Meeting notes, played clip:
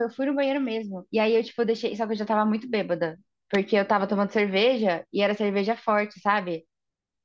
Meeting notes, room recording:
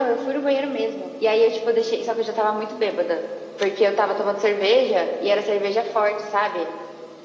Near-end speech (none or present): none